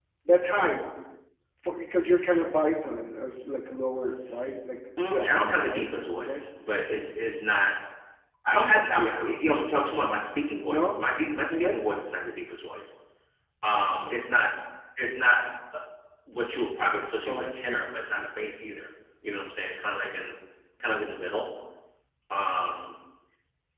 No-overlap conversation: No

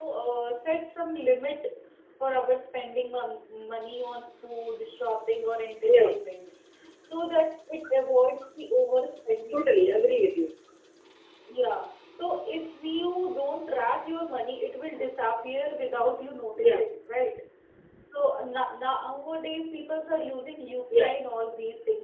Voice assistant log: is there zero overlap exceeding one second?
Yes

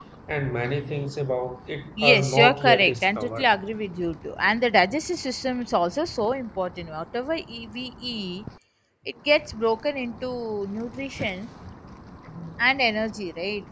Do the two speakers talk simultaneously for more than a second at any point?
Yes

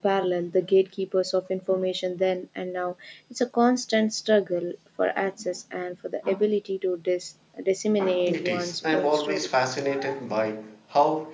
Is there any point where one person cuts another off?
Yes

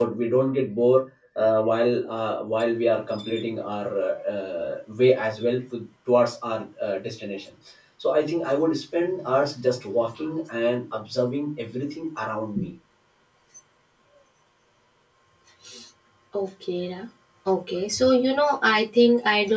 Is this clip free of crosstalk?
Yes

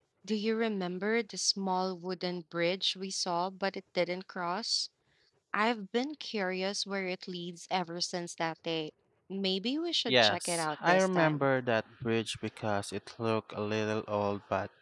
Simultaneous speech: Yes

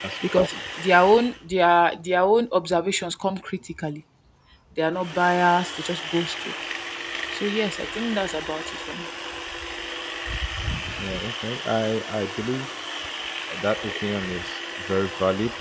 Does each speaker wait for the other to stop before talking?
Yes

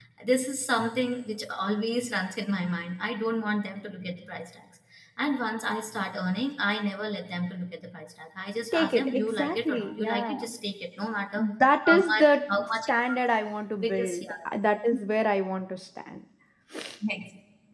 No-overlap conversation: No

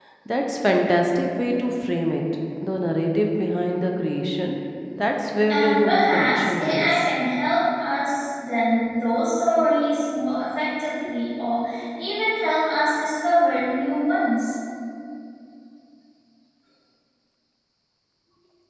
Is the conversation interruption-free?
No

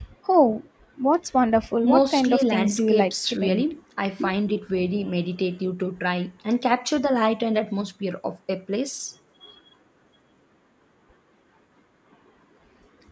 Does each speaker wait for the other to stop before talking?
No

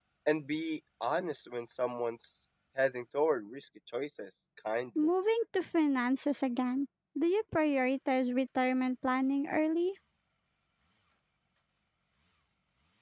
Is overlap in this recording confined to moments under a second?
Yes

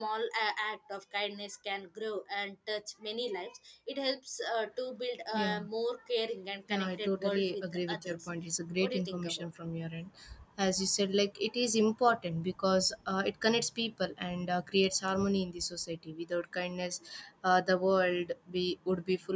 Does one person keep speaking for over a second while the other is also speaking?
Yes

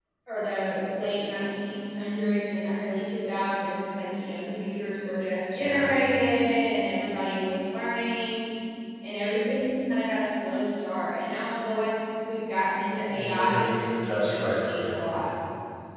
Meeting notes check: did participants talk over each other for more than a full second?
Yes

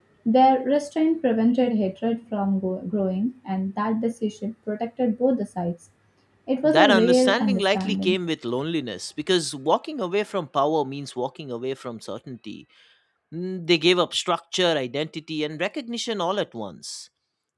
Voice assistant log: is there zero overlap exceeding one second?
No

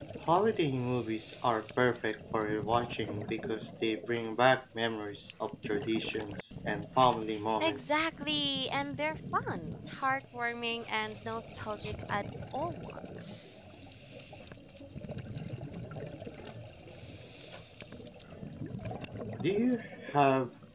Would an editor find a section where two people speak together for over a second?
No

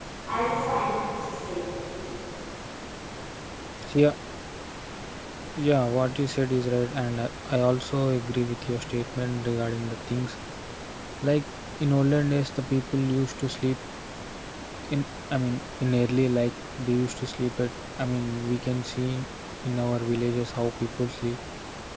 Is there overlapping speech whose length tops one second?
No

